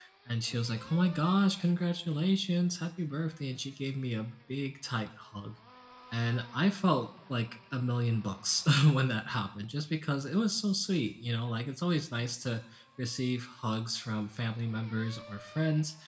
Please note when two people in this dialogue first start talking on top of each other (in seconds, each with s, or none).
none